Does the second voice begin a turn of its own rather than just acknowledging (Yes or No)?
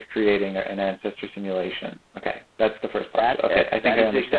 Yes